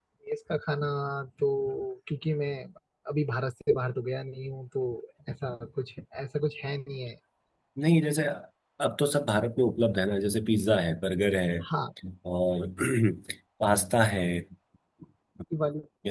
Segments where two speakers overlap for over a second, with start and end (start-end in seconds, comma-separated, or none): none